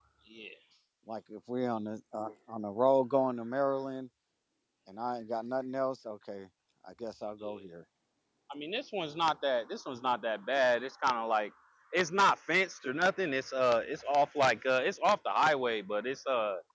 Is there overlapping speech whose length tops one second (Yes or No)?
No